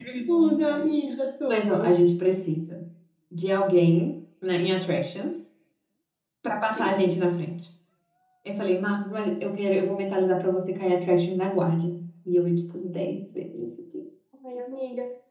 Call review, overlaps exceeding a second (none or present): none